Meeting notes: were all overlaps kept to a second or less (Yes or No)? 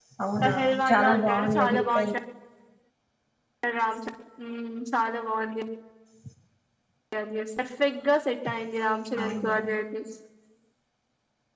No